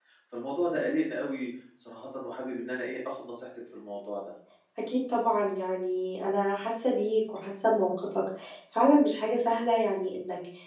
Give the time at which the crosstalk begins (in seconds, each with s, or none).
none